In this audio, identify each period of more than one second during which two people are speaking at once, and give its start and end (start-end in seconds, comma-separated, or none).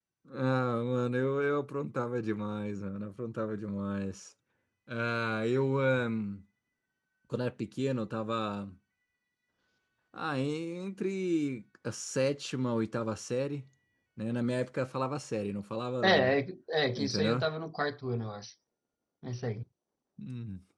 none